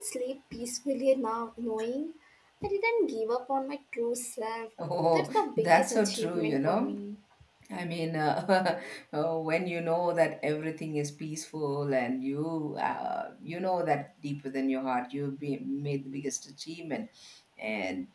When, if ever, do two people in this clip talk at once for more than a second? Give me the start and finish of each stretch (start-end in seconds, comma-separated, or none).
5.1-7.0